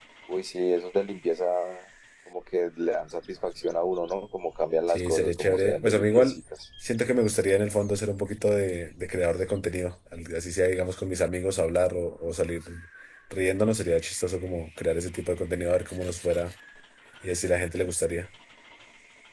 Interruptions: present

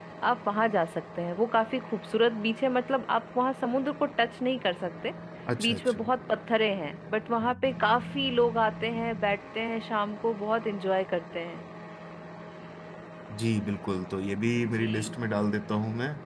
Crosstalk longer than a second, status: none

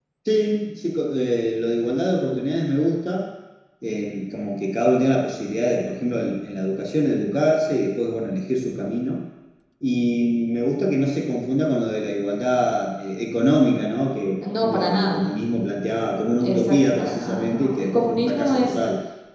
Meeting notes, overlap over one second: present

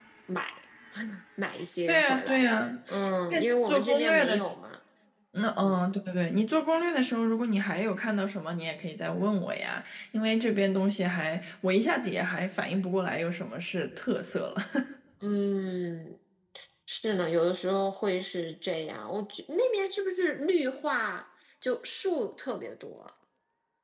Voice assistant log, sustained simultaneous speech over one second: present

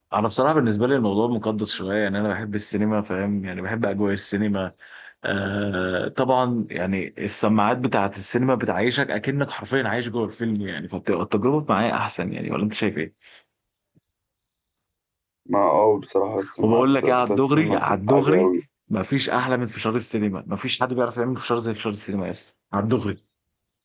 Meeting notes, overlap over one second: present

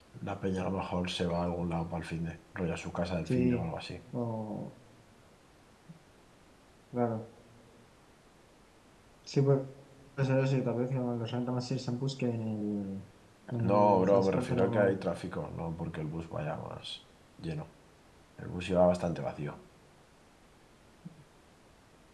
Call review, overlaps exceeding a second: present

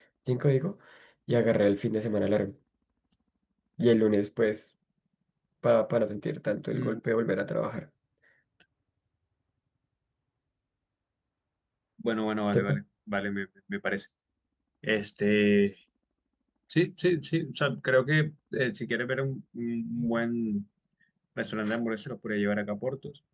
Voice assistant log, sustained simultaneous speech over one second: none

